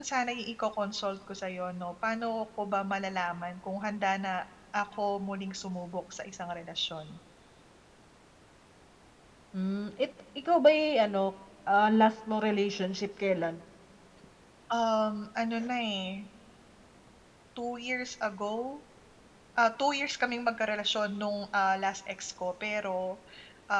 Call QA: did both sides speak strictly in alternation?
Yes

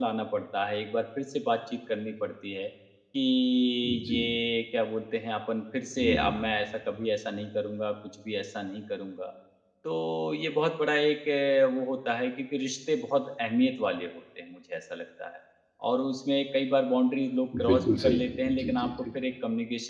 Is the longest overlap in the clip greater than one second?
Yes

